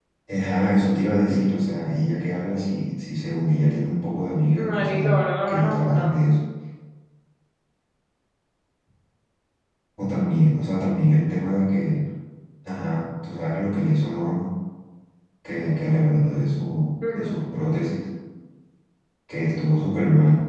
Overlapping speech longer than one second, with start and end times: 4.5-6.1

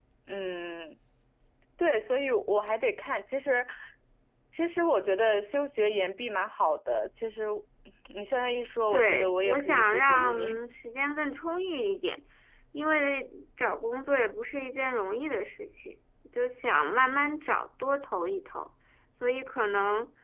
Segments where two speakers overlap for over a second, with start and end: 8.9-10.6

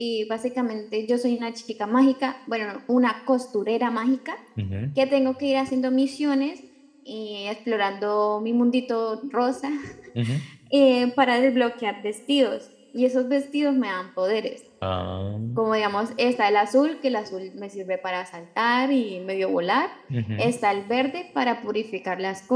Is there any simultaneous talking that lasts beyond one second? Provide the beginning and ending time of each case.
none

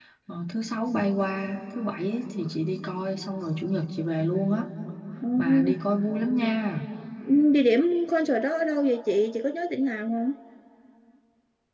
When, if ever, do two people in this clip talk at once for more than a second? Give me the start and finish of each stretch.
none

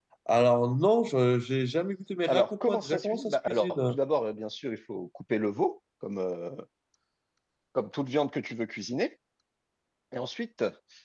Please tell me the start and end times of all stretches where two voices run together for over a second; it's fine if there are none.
2.3-4.0

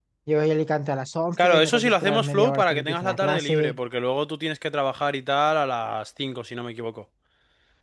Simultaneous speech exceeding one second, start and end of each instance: 1.4-3.8

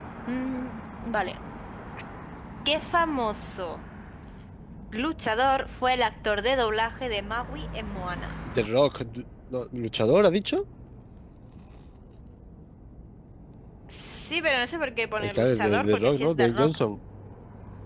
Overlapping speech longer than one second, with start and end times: 15.2-16.7

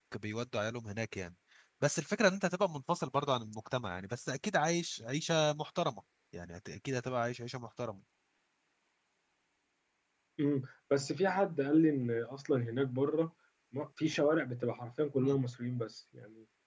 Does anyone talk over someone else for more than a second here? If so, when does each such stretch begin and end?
none

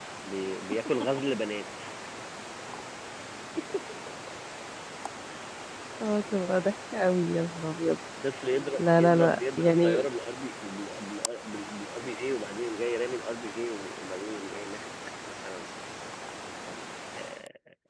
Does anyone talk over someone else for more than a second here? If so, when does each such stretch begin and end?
8.8-10.1

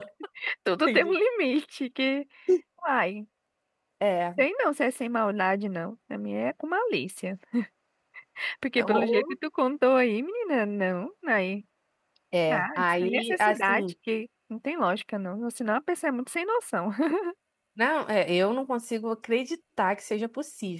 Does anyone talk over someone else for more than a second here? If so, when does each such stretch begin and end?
12.5-13.9

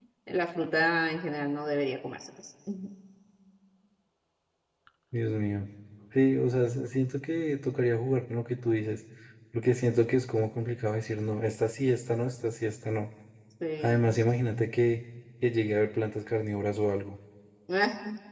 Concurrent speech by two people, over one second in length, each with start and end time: none

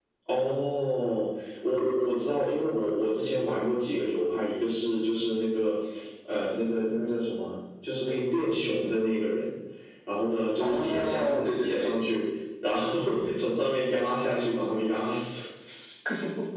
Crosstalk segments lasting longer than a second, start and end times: 10.6-12.0

